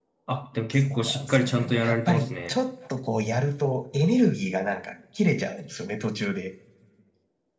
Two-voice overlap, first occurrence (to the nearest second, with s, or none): 1 s